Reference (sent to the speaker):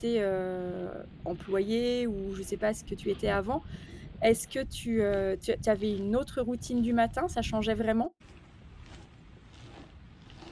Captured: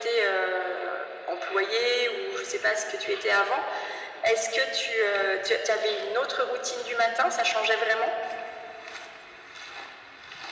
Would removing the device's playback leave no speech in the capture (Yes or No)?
Yes